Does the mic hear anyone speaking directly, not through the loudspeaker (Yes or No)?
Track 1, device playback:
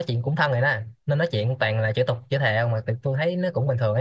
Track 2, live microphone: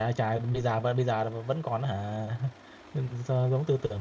Yes